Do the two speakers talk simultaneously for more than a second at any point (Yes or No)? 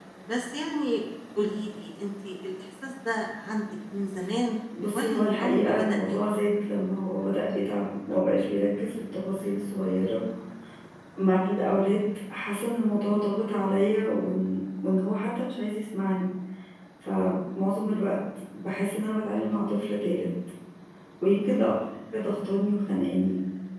Yes